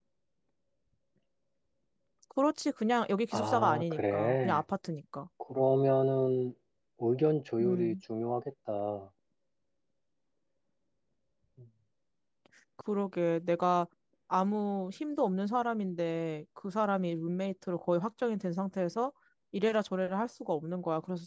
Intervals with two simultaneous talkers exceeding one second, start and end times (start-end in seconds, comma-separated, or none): 3.3-4.6